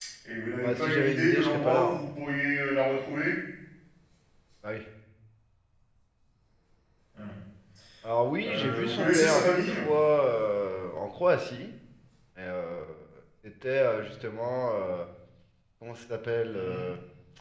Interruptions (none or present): present